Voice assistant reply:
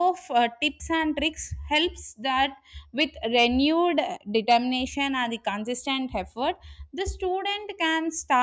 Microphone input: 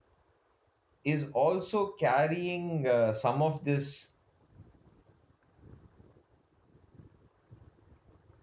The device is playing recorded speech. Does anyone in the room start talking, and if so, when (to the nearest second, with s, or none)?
1 s